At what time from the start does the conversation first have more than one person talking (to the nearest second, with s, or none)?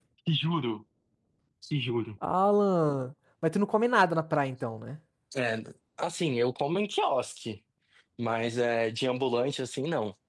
none